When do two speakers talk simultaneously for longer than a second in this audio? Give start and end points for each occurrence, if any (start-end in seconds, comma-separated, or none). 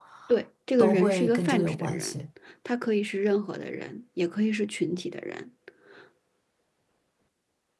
0.8-2.1